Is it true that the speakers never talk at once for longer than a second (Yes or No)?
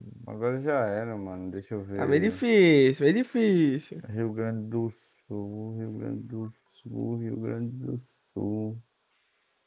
Yes